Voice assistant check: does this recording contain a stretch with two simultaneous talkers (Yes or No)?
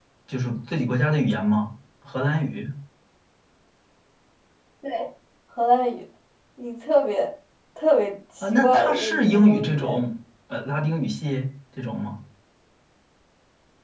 Yes